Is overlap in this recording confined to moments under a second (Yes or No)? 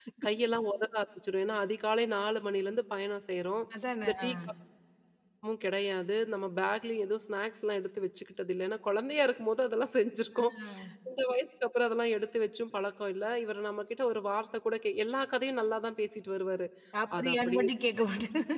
Yes